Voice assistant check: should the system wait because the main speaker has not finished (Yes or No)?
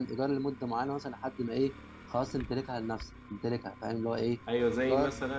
No